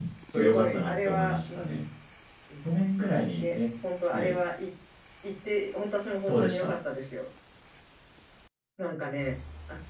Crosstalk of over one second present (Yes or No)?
Yes